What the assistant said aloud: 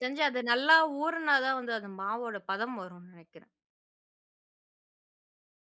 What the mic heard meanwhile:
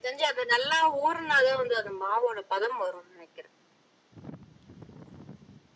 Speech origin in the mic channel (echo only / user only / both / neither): echo only